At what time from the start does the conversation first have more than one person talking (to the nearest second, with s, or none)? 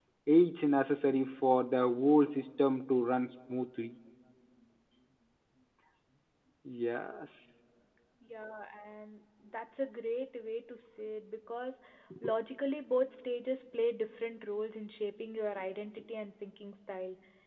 none